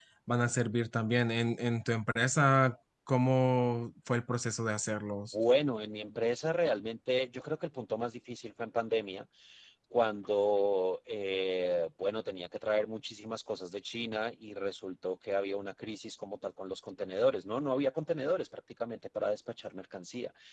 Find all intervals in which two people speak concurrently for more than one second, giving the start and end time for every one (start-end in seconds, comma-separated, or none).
none